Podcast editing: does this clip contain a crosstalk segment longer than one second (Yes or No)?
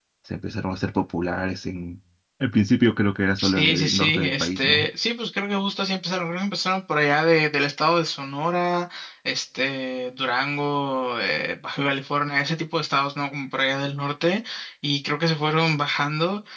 Yes